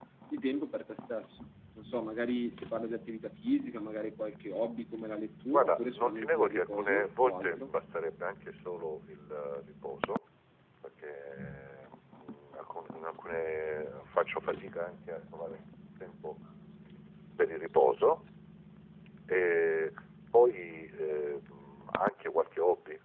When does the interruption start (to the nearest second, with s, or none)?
6 s